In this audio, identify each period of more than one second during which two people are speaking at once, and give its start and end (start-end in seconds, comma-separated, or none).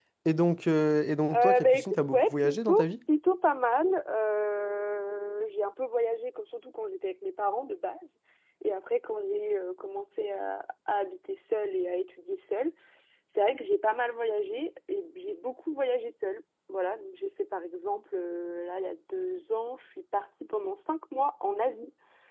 1.3-2.9